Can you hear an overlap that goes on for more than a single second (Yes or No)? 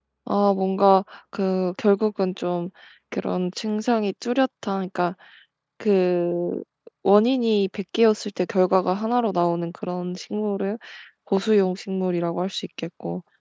No